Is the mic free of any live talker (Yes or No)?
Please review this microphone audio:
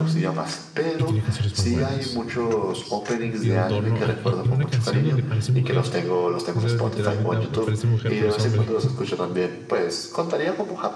No